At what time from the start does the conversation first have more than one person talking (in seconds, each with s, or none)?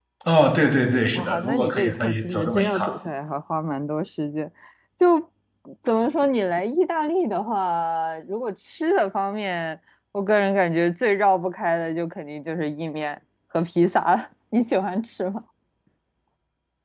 1.1 s